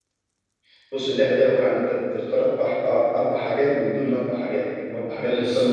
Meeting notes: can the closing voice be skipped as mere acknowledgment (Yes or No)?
Yes